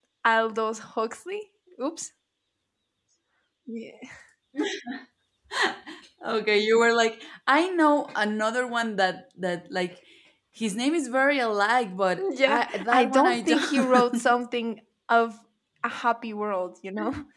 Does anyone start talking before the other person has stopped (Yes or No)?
Yes